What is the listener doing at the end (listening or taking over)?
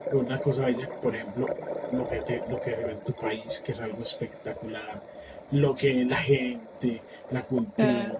listening